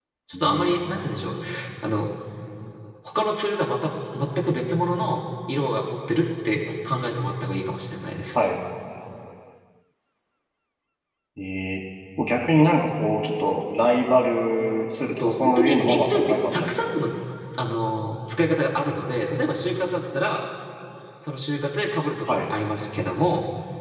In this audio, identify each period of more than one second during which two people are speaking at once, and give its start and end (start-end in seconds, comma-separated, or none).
15.2-16.9